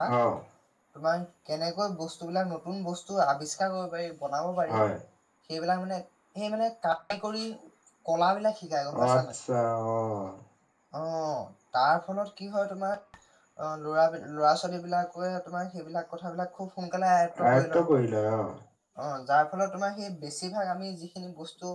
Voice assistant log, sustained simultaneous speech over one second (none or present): none